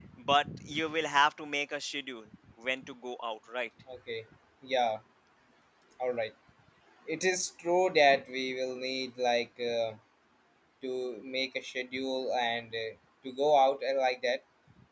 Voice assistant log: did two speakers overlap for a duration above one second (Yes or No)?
No